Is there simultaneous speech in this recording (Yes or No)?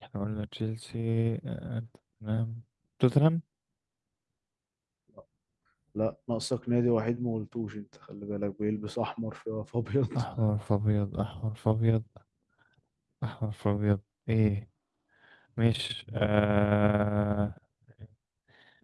No